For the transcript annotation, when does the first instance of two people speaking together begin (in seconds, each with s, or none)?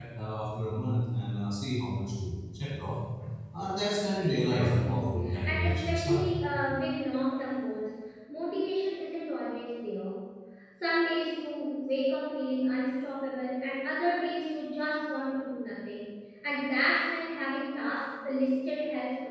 4.2 s